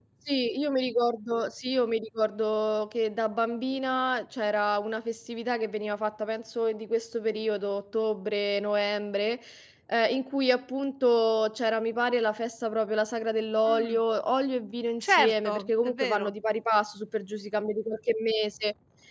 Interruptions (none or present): present